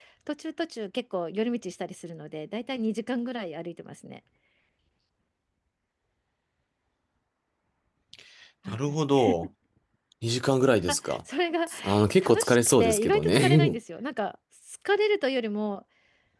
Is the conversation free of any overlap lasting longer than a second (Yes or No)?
No